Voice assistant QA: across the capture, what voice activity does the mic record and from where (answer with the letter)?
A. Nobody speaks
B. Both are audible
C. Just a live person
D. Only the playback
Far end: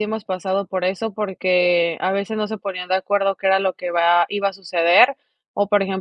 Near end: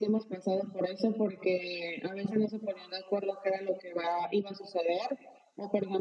D